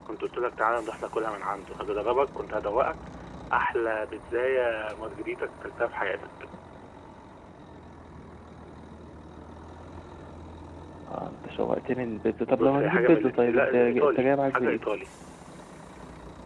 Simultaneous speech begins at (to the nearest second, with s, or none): 13 s